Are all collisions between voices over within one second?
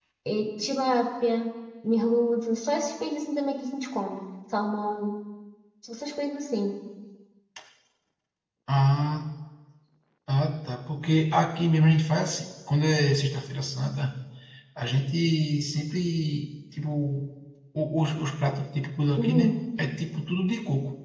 Yes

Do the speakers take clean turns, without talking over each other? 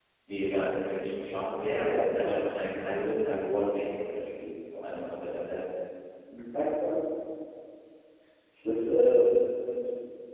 Yes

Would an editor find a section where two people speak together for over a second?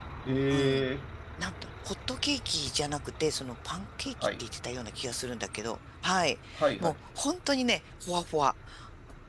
No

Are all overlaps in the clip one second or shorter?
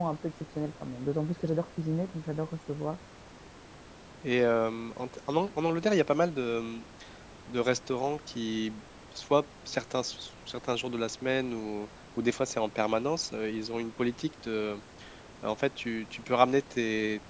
Yes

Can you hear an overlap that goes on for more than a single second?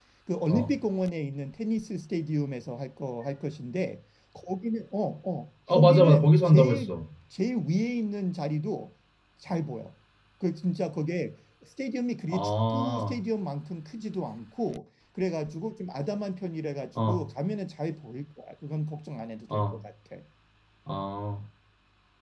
Yes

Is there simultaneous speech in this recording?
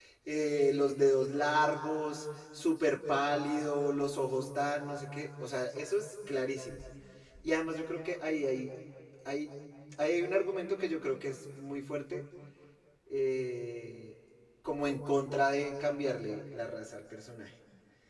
No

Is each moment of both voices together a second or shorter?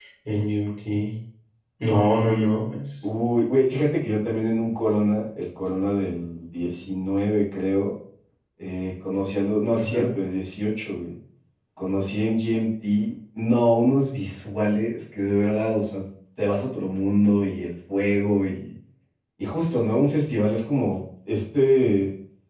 Yes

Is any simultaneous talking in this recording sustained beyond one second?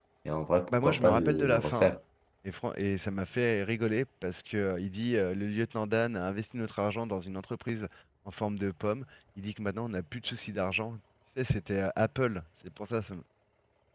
Yes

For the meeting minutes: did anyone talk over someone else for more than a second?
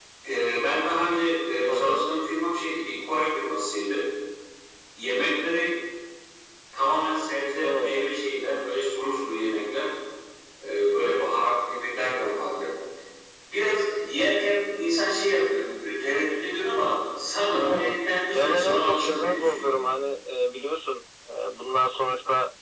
Yes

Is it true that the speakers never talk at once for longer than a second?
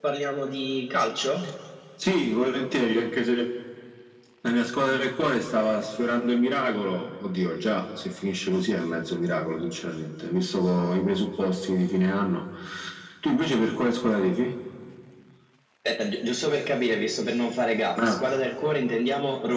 Yes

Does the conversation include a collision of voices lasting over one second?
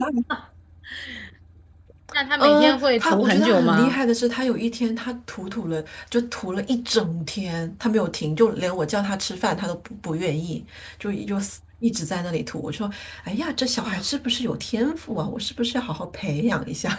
Yes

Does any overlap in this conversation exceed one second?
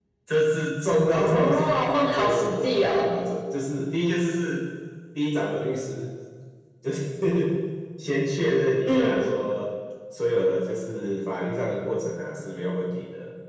Yes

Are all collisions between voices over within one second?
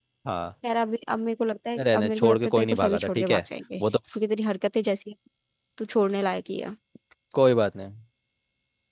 No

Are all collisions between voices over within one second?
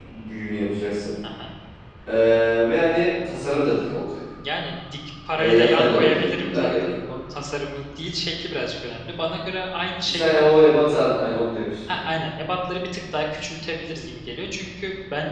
No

